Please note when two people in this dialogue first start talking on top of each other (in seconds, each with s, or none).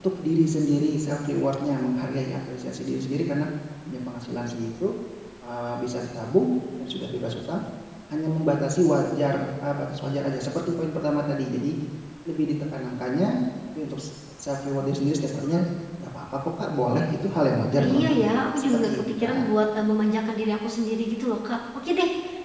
17.8 s